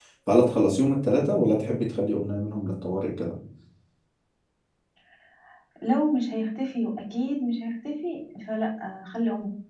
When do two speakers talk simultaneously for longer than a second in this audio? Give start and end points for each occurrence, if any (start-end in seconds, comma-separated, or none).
none